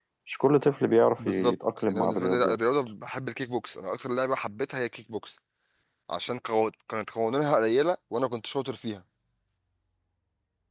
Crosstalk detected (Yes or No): Yes